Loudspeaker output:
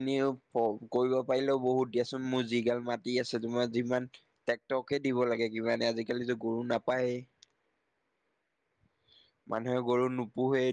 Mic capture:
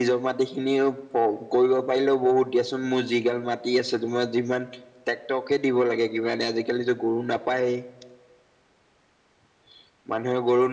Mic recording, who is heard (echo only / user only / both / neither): echo only